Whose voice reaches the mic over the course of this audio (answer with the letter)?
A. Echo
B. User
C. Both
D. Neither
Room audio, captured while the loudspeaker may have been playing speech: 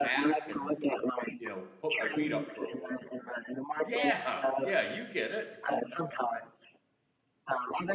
C